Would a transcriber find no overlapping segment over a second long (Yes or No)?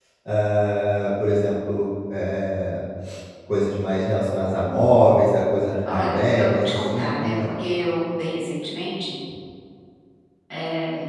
No